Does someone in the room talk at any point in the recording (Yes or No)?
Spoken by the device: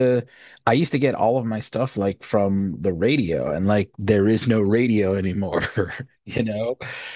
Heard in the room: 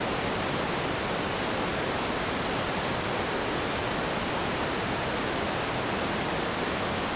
No